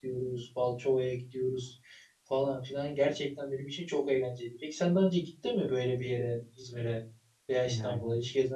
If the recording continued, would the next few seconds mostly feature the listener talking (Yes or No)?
No